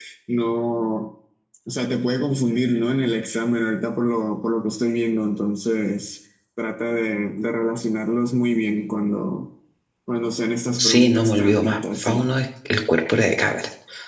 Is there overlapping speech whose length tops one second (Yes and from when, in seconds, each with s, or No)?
Yes, from 10.8 s